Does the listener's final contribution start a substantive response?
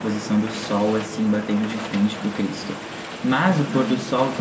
No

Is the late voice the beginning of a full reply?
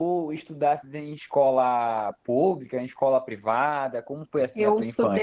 Yes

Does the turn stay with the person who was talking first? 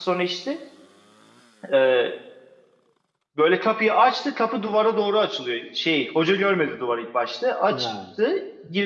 Yes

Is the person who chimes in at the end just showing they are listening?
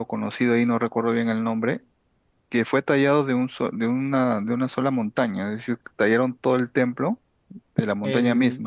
No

